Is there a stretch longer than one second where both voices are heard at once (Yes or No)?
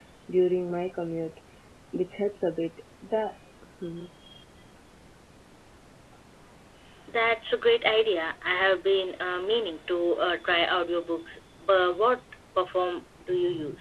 No